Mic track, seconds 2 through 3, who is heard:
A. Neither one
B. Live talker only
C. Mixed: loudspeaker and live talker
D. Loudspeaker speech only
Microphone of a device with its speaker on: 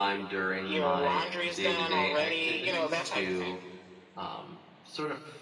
C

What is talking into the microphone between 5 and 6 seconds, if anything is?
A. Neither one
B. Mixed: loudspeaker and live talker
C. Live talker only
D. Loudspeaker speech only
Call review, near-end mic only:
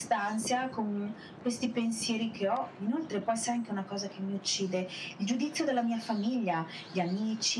D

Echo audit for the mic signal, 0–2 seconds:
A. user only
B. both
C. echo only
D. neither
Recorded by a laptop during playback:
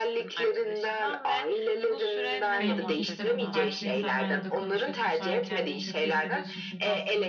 C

